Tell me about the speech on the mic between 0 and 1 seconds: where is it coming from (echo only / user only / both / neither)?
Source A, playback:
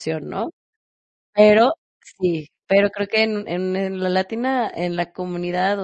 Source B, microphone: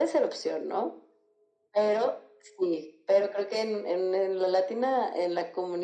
echo only